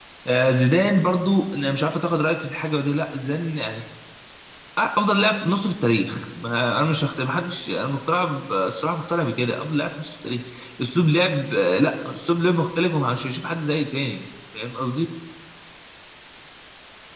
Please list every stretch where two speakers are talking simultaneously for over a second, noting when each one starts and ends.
none

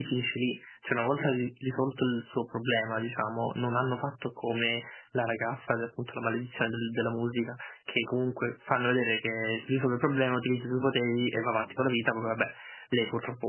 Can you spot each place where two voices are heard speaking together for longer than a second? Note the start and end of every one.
none

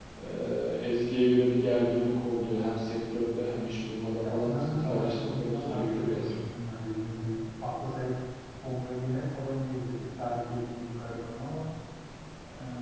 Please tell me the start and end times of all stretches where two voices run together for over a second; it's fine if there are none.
4.2-6.3

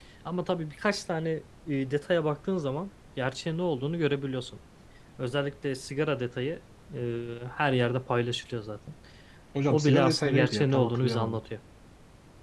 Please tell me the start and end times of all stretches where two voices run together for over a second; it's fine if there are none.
9.7-11.4

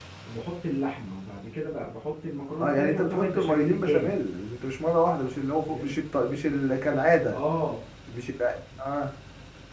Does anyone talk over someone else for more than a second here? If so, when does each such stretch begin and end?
2.6-4.2

